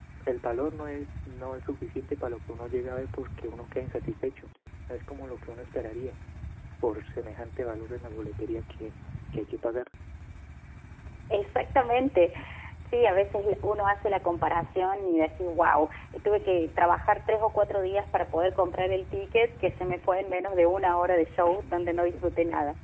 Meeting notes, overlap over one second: none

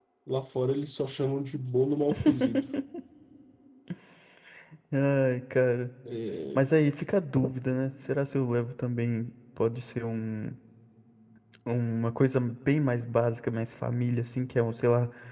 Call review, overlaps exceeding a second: none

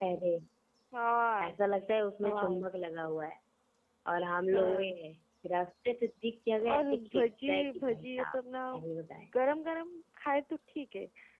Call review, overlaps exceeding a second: present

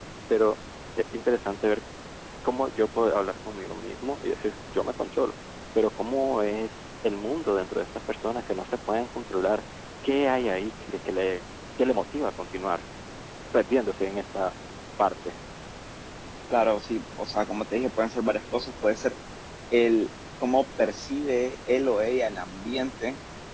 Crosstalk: none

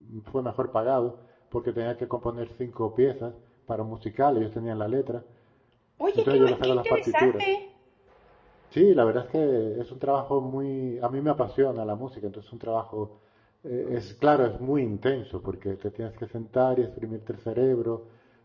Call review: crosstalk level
present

